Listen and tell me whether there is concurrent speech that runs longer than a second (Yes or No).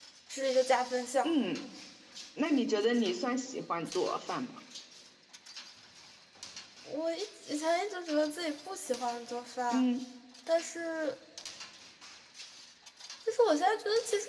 No